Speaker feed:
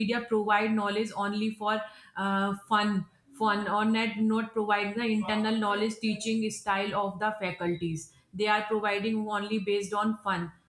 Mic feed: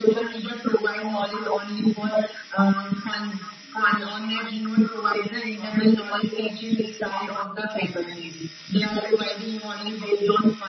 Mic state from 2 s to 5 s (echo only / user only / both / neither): echo only